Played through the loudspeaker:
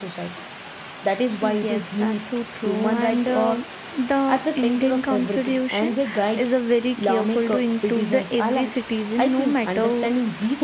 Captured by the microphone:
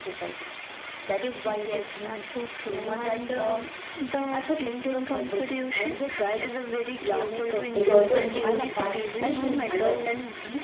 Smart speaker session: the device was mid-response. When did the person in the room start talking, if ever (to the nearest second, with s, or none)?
8 s